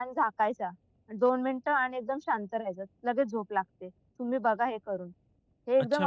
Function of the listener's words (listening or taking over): taking over